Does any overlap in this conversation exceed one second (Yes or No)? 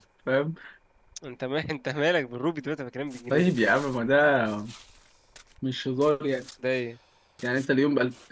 No